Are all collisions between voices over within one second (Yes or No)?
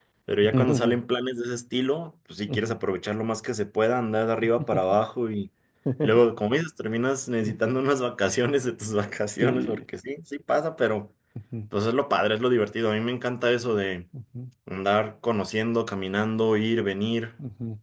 Yes